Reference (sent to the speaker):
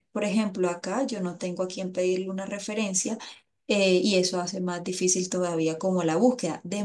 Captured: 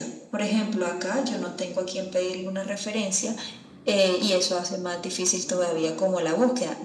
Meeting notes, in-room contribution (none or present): none